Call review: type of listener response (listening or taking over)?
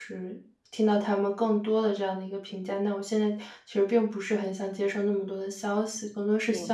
listening